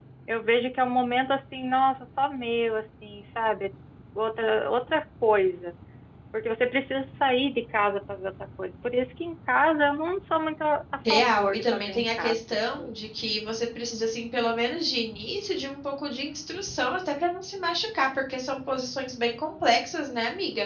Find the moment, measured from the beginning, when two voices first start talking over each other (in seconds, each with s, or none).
11.1 s